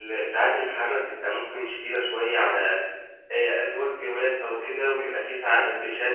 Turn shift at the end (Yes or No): No